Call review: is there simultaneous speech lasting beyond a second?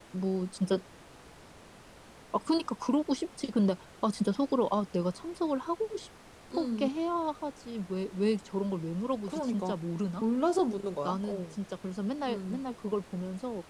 No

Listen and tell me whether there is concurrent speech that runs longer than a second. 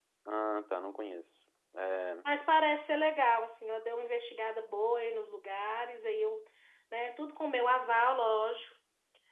No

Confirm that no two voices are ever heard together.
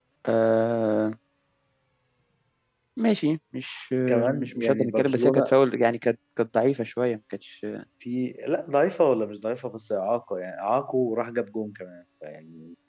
No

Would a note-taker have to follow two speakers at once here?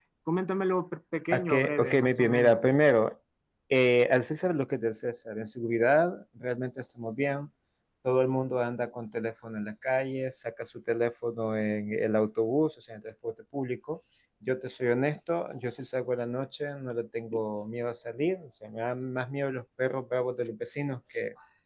Yes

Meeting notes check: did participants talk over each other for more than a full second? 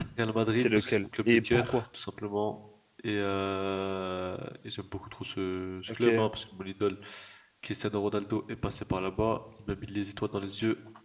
Yes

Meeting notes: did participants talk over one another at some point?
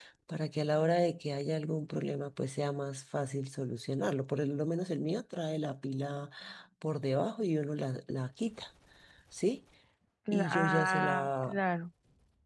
Yes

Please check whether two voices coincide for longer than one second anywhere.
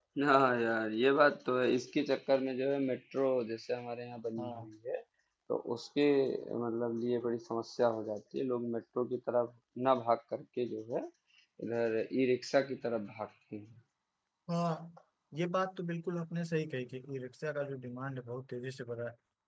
No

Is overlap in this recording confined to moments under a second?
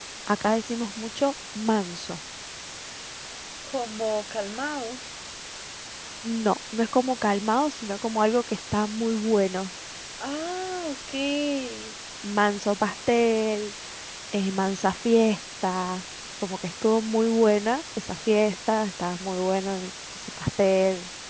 Yes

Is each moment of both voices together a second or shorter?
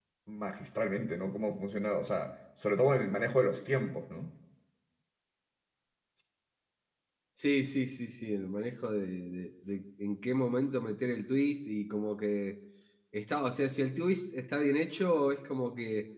Yes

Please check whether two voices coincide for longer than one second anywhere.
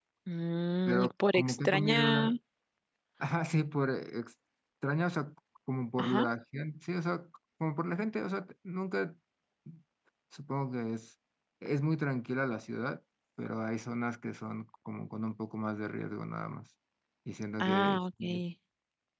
Yes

